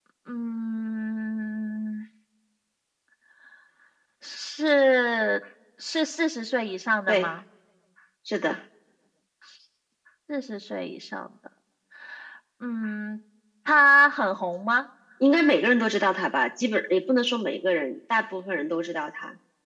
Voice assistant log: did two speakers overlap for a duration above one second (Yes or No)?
No